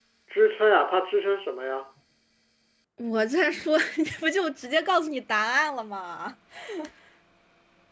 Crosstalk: none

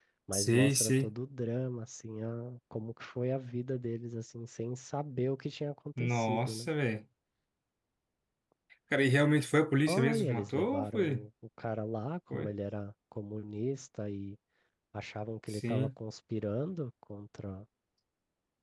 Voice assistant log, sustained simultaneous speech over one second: present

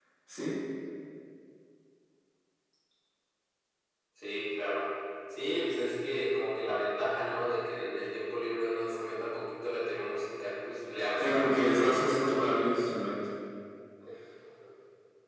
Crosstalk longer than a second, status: present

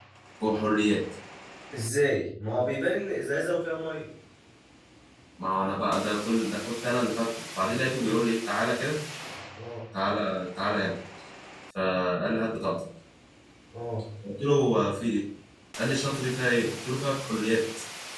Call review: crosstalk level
none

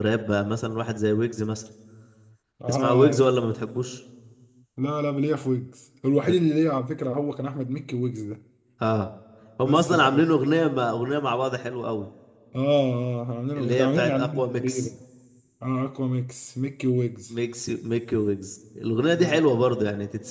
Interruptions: present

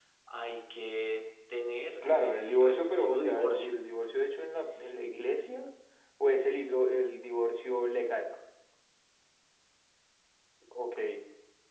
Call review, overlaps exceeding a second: present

